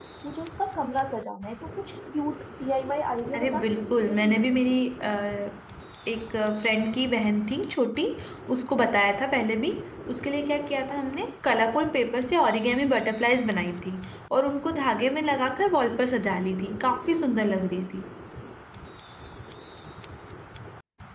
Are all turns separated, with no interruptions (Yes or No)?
No